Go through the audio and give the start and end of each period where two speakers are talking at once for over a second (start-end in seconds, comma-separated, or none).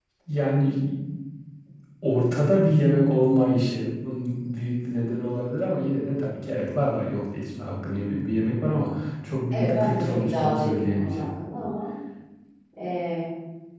9.5-11.3